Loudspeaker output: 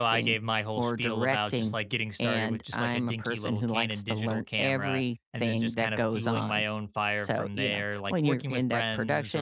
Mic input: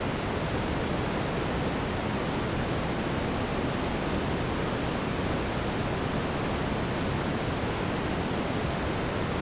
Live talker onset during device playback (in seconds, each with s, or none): none